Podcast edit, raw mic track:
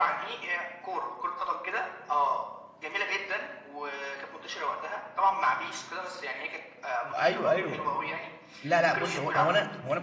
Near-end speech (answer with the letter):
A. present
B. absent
A